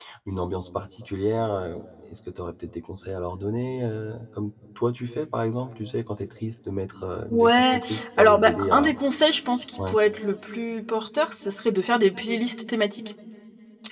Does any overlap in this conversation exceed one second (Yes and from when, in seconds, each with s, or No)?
Yes, from 7.3 s